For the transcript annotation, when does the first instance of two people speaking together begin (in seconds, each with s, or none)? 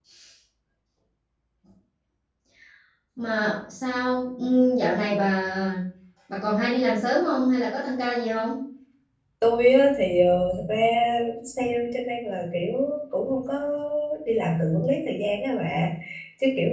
none